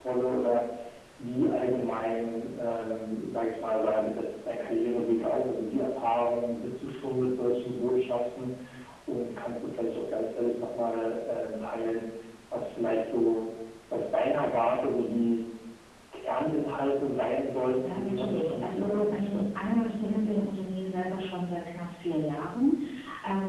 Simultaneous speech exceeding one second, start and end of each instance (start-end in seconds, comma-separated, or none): 17.8-19.4